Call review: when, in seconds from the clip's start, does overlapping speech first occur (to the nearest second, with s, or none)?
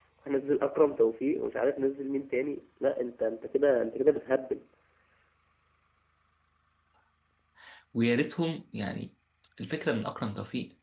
none